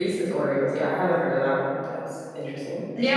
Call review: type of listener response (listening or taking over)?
taking over